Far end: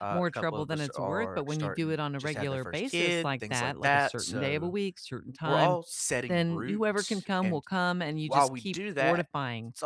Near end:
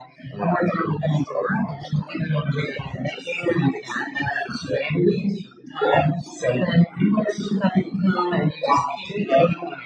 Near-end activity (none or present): none